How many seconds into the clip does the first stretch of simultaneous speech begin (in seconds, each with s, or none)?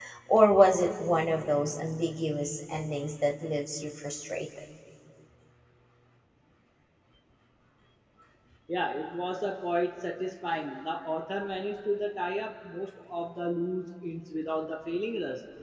none